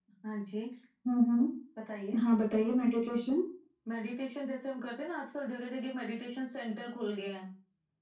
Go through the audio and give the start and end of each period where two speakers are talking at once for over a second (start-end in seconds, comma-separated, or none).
none